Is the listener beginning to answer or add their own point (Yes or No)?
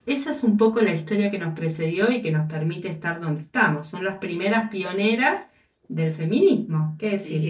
Yes